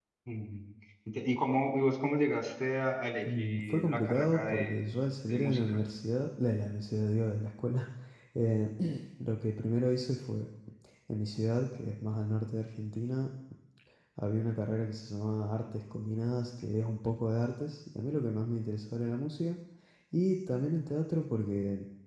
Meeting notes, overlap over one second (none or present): present